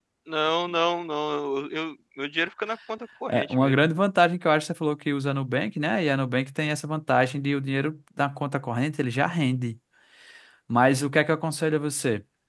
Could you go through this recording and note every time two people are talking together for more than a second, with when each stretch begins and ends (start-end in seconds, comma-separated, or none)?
none